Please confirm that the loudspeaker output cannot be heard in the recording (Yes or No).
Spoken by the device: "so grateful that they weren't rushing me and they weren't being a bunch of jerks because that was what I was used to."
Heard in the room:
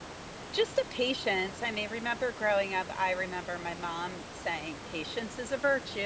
Yes